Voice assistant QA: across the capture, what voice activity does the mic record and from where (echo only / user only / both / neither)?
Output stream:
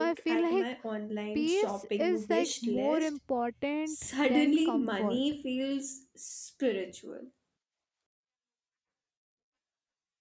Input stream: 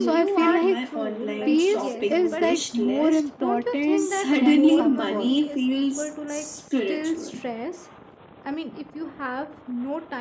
both